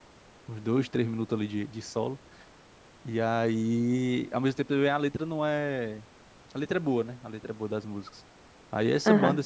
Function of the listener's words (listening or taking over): listening